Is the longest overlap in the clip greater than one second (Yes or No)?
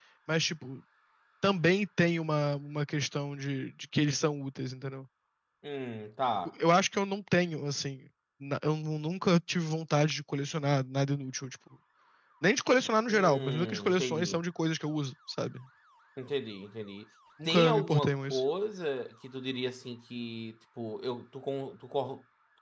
Yes